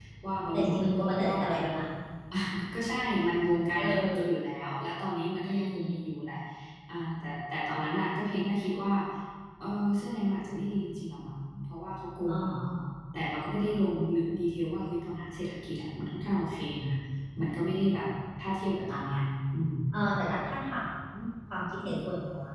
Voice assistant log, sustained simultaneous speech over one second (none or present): present